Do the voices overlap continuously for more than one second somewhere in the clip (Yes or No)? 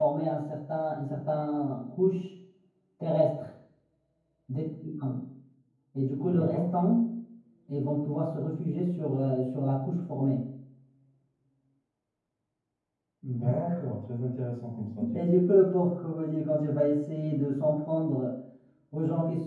No